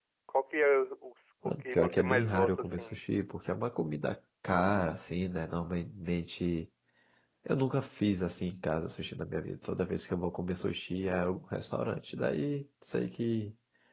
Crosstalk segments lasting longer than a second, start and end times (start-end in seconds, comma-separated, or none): 1.4-3.0